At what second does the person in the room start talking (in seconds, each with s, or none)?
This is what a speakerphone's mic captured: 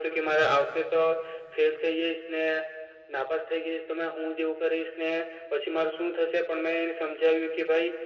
none